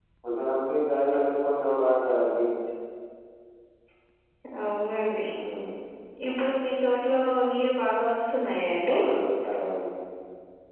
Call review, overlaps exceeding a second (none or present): none